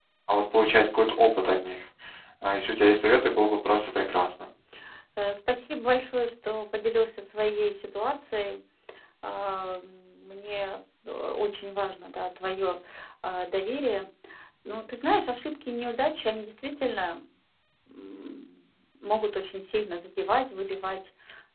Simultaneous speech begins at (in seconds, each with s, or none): none